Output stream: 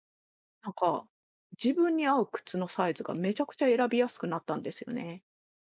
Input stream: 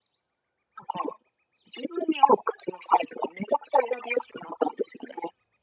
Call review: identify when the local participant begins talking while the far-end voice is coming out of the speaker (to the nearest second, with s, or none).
none